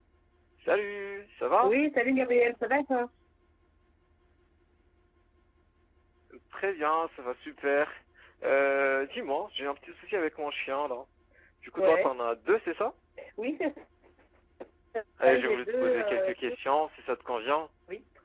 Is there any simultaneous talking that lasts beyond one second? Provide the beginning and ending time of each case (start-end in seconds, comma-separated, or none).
15.2-16.5